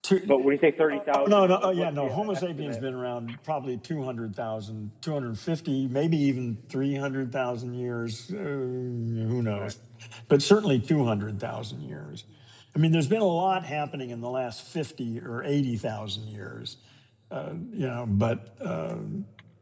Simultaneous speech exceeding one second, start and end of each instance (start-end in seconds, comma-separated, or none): 0.9-2.8